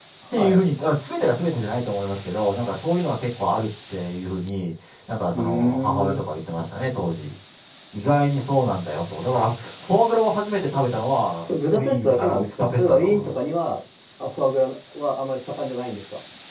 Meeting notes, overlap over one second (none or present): present